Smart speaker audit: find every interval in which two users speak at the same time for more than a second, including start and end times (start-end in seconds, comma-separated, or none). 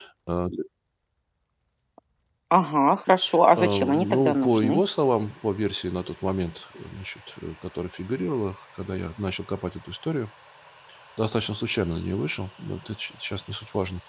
3.6-4.8